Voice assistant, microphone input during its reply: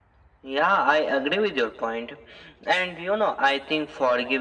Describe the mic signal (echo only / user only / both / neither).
echo only